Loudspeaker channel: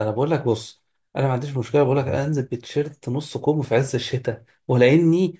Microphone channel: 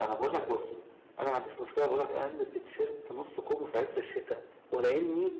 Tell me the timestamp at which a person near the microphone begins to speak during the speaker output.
none

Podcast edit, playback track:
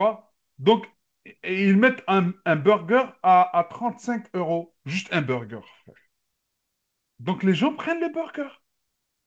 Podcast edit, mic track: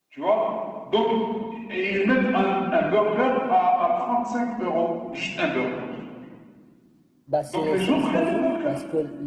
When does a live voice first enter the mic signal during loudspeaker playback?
7.2 s

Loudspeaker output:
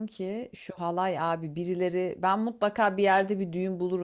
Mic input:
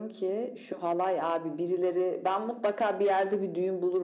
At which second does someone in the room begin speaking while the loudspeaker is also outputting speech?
none

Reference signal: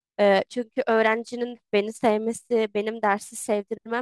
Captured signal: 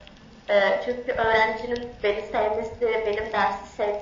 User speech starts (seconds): none

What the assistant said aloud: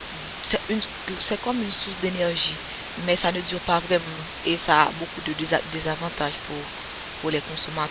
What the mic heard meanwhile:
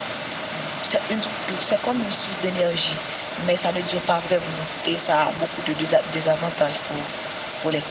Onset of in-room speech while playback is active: none

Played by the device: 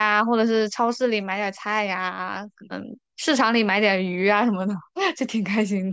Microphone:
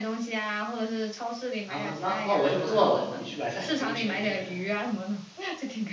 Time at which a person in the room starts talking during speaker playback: 1.6 s

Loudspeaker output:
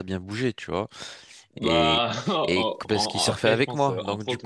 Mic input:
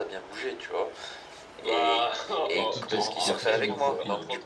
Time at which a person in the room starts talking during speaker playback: 2.5 s

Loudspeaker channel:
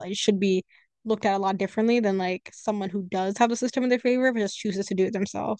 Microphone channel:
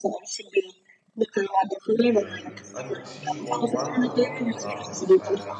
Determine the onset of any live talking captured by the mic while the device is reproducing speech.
2.0 s

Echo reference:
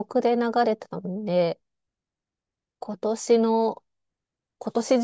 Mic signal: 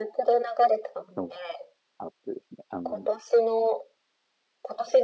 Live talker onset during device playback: 1.1 s

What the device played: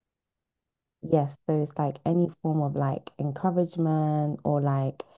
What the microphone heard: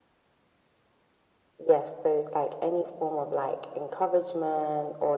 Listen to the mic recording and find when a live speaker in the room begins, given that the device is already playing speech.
none

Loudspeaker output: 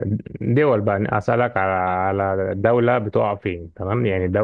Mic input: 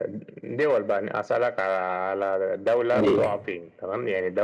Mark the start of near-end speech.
2.9 s

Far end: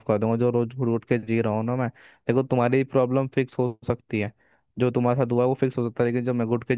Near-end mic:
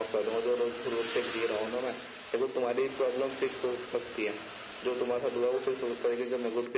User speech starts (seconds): none

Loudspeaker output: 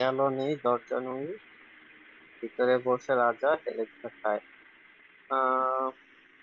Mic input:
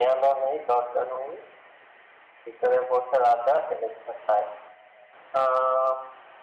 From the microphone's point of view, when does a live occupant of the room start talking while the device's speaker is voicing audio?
none

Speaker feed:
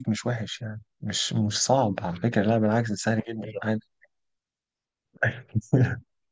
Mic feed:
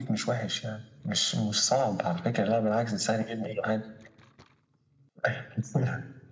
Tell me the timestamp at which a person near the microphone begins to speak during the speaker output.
none

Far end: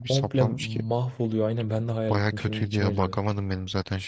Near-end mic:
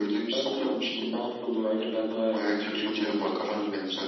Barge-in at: 2.7 s

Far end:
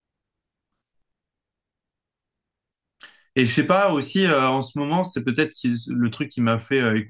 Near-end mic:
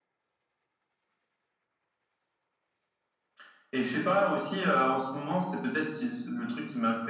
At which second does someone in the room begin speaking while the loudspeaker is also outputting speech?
none

